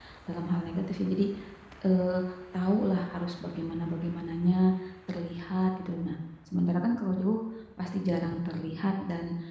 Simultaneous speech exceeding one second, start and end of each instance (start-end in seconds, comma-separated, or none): none